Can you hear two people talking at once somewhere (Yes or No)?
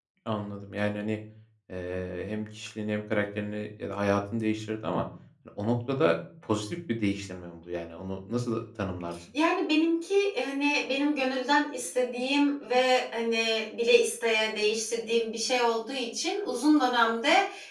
No